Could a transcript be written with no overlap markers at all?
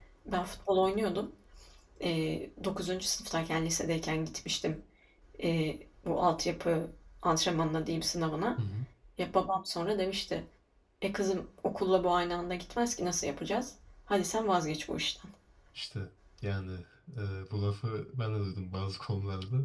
Yes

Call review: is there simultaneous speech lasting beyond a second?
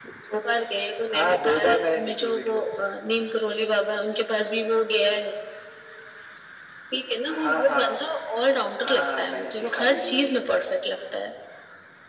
Yes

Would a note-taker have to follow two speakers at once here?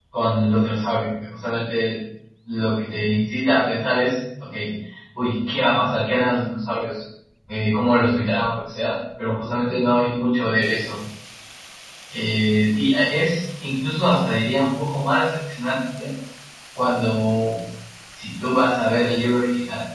No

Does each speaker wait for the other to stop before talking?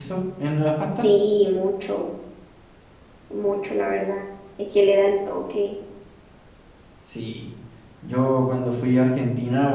Yes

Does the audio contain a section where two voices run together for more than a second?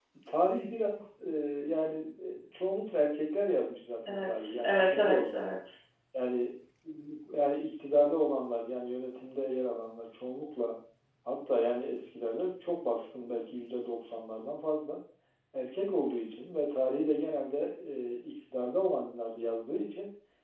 Yes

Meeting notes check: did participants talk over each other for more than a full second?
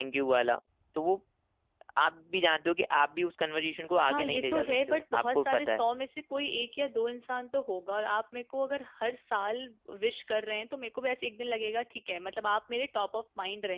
Yes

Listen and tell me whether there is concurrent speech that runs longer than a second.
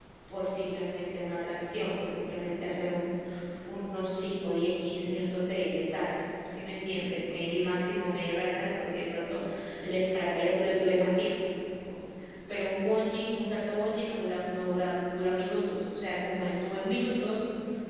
No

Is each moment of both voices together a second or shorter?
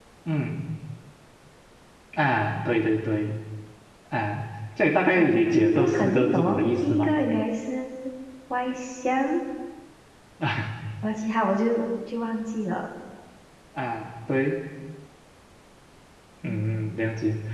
No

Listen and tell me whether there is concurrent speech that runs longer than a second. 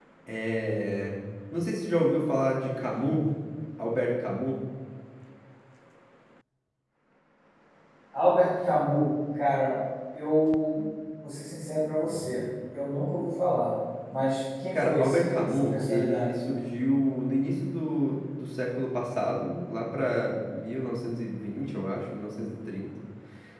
Yes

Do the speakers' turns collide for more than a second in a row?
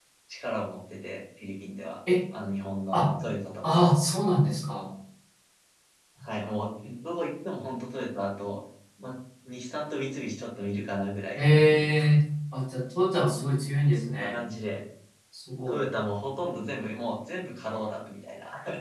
No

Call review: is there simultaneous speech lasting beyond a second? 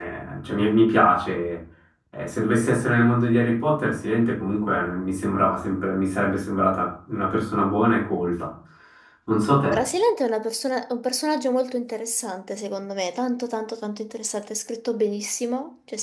No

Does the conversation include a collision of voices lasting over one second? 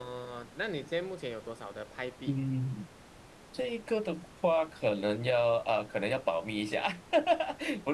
No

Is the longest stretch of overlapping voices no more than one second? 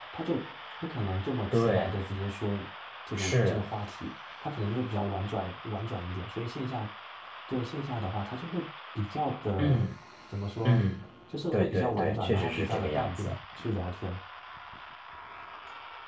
No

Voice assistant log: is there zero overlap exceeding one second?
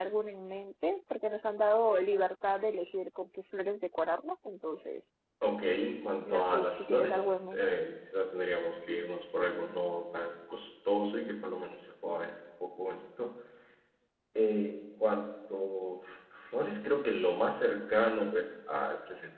No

